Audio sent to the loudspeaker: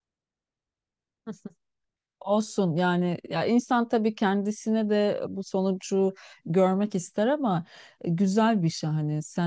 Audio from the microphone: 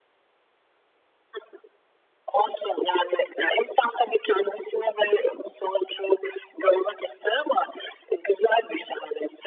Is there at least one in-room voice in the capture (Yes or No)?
No